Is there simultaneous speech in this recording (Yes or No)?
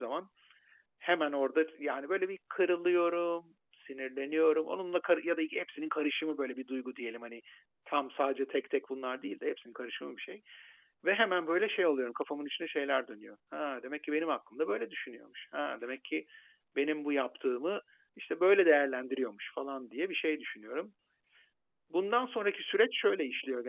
No